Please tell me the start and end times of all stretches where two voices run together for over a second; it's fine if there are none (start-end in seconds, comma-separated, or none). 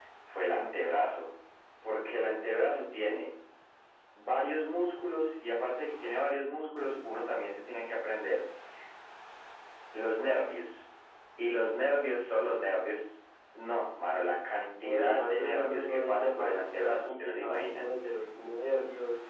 14.8-17.9